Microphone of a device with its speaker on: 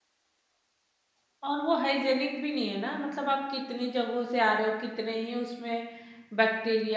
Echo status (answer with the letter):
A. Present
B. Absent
B